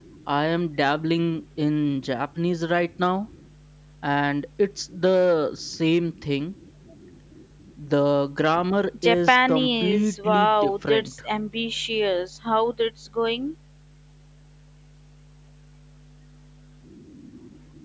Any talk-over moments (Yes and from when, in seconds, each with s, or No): Yes, from 8.9 s